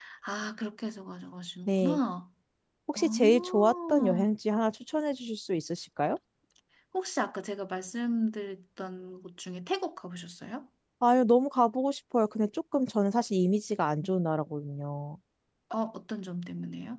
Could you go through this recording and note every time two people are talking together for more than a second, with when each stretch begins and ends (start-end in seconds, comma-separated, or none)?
3.0-4.3